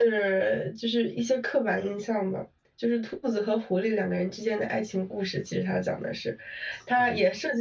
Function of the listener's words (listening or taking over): listening